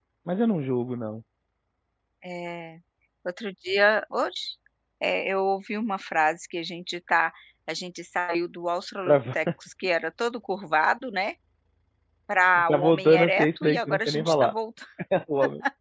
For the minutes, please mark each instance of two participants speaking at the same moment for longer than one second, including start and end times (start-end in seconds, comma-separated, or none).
12.7-14.5